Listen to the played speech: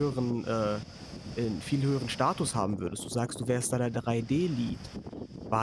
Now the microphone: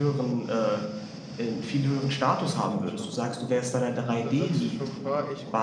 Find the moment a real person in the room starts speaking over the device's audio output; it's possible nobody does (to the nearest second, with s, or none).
2 s